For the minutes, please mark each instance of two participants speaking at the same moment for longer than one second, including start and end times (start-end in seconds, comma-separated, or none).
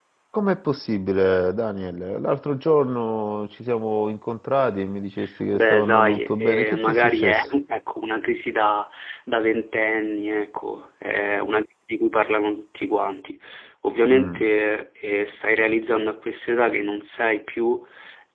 5.5-7.5